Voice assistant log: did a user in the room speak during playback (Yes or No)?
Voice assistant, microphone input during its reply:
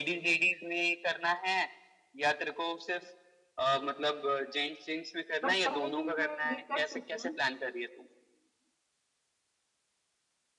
Yes